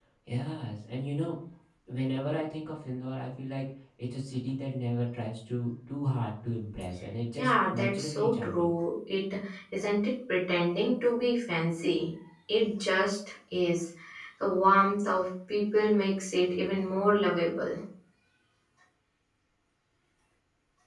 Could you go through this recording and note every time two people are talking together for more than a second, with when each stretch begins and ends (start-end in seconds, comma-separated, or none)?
7.4-8.7